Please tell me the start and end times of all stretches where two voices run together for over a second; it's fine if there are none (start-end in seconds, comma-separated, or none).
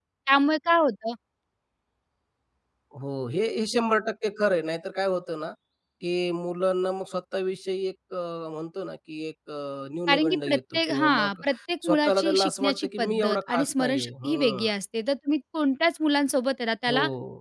10.1-11.3, 11.9-14.7